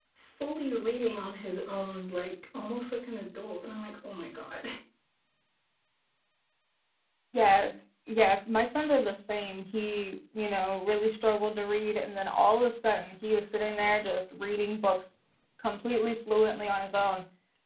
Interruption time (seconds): none

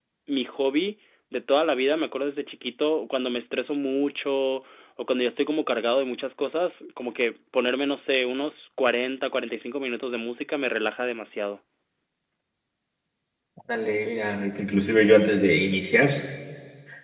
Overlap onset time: none

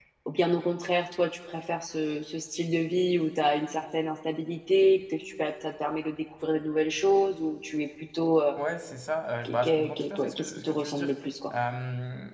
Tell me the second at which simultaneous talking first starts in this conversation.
9 s

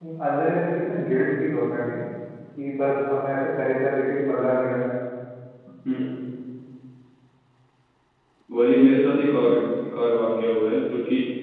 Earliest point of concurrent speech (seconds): none

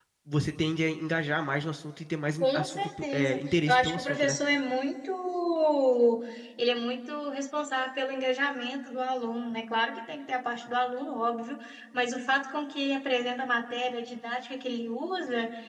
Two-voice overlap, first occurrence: 2 s

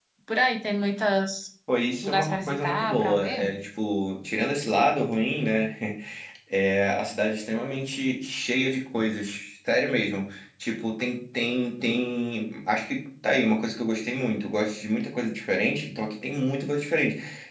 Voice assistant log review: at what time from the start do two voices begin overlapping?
2 s

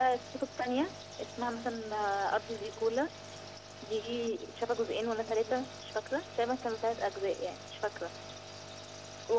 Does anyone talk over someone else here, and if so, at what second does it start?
none

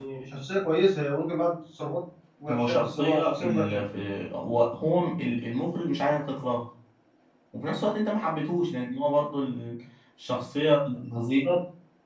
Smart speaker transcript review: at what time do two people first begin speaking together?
3 s

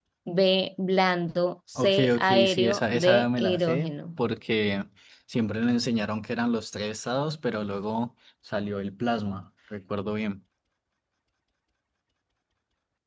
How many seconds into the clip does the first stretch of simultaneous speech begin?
2 s

